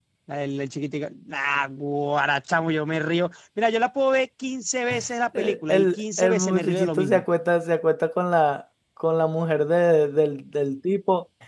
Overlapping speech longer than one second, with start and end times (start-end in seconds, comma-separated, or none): 5.4-7.2